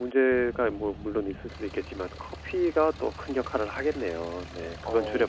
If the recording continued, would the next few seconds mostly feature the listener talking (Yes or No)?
Yes